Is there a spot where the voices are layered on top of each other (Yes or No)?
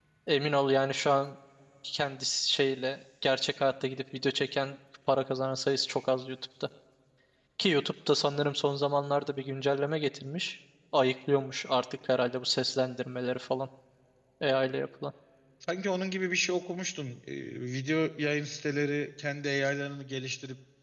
No